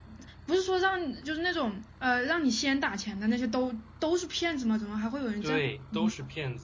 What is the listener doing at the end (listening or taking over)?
taking over